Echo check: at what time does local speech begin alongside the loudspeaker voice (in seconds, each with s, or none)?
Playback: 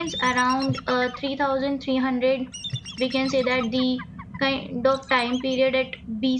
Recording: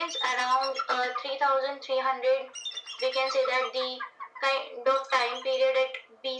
none